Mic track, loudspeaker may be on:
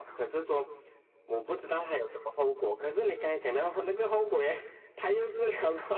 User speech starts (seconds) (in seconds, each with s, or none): none